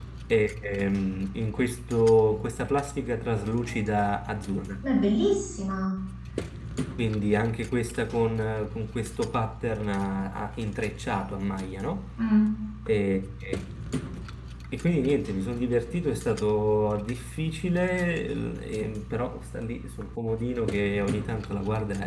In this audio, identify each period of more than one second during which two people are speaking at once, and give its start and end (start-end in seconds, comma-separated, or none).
none